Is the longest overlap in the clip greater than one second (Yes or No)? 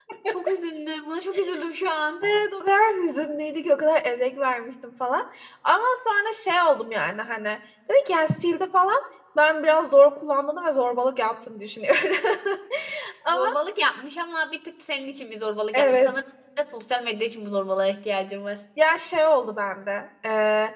No